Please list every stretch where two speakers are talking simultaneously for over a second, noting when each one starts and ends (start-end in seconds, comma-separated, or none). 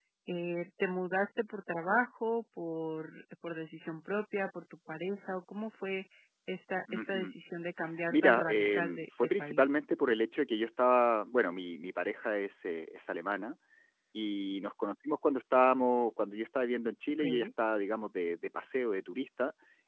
8.1-9.6